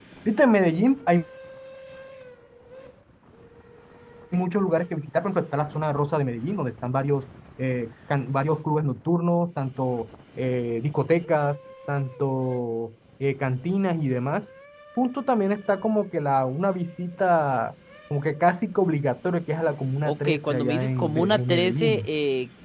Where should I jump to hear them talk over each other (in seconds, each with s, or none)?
20.0 s